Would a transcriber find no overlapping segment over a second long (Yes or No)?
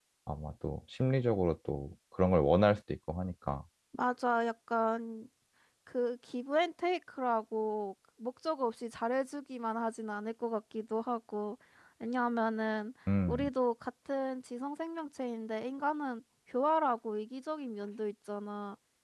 Yes